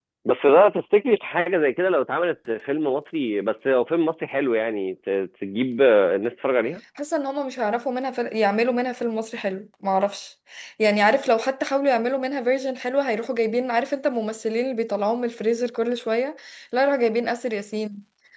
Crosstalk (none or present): none